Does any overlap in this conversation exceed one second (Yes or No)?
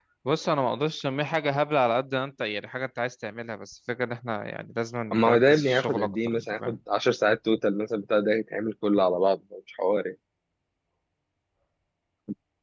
Yes